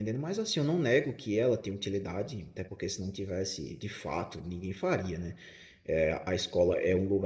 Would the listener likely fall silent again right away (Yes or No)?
Yes